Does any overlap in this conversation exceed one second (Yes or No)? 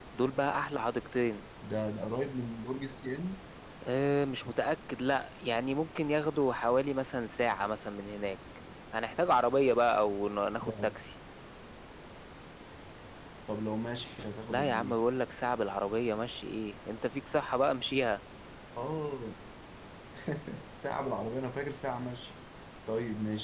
No